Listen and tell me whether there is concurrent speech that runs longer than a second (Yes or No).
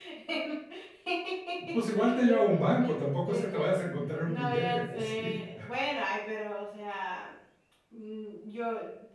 Yes